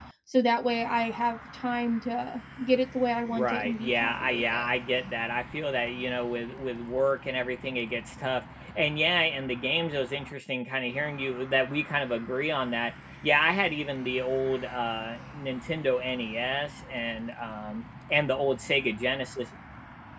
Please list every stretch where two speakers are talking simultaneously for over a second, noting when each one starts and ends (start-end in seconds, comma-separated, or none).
3.3-4.7